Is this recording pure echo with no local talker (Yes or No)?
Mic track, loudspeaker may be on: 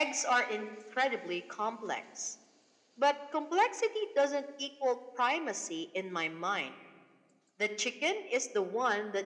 Yes